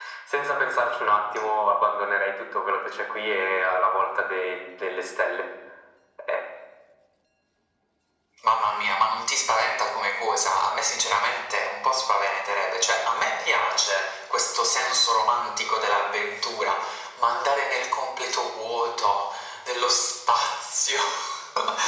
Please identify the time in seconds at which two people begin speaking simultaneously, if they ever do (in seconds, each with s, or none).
none